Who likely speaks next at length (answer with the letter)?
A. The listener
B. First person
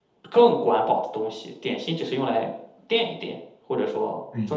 A